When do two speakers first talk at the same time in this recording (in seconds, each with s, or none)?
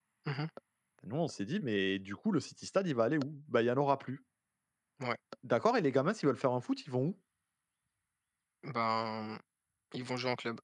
none